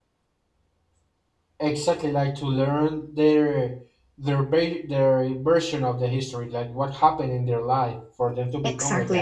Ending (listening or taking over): taking over